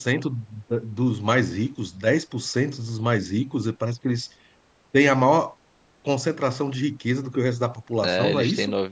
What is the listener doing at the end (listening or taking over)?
taking over